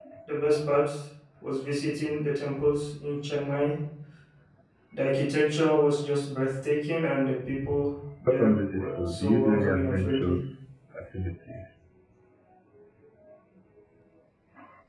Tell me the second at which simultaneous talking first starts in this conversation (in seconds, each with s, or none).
8.3 s